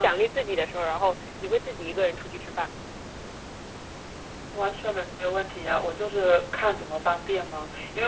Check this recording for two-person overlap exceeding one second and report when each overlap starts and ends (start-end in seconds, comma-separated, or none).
none